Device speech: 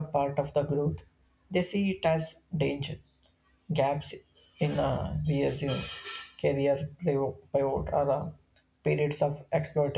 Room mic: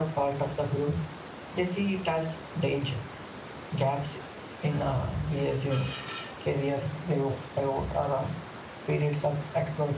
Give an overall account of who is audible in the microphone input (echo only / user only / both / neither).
echo only